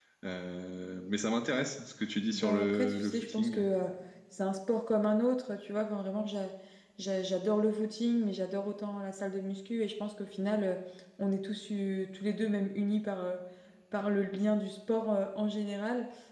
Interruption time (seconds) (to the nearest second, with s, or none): 2 s